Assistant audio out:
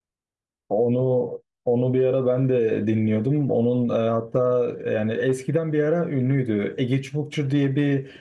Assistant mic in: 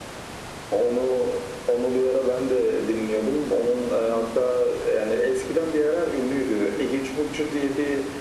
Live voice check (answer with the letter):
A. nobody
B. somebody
A